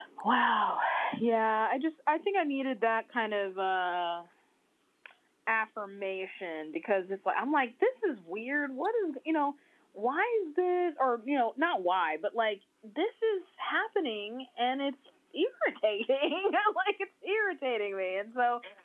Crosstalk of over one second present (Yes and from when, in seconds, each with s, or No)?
No